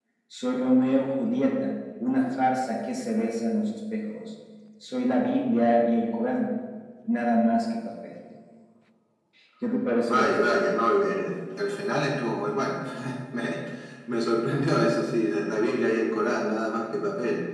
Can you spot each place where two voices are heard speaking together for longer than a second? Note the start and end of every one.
none

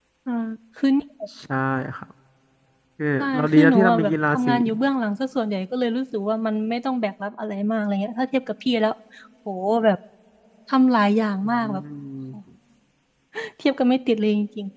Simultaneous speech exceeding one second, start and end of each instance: 3.2-4.5

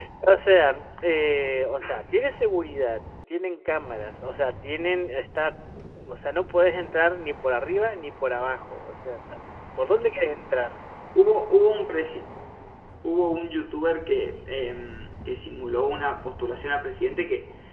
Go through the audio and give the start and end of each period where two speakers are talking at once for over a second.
none

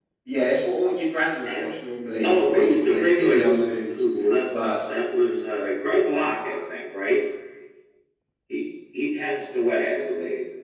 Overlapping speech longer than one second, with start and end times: 2.2-4.0

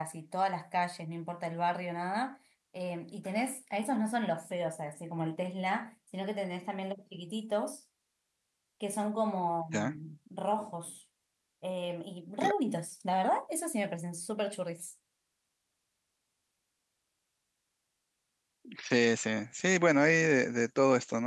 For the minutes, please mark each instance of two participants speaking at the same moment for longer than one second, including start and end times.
none

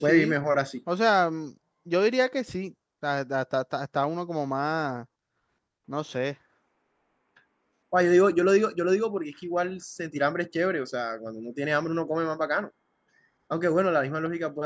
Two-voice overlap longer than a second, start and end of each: none

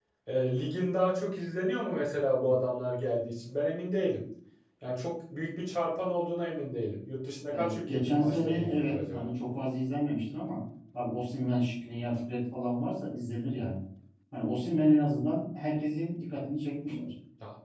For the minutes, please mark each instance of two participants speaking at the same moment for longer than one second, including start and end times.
7.6-9.3

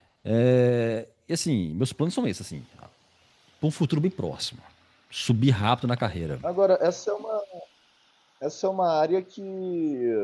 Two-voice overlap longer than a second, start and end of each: none

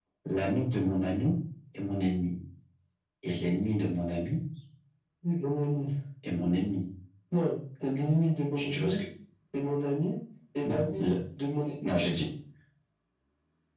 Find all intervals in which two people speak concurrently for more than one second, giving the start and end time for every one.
none

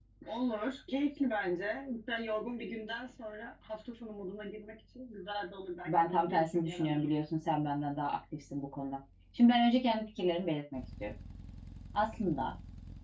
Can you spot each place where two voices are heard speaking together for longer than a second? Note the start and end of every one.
5.9-7.1

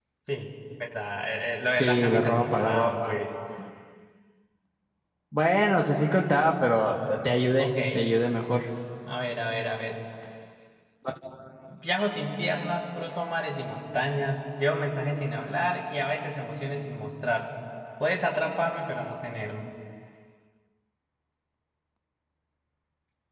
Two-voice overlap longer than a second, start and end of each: 1.8-3.2

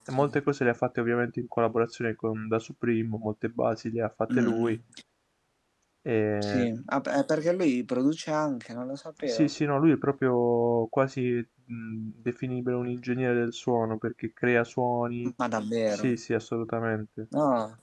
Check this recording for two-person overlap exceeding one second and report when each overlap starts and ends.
none

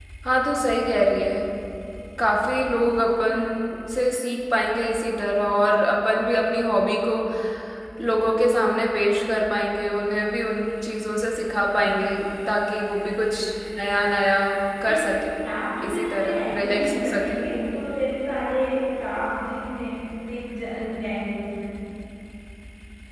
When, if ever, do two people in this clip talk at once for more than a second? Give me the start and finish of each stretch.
15.9-17.4

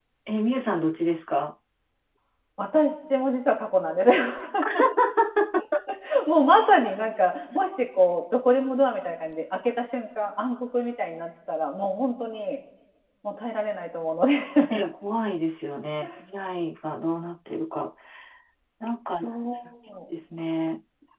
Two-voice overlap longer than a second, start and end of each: none

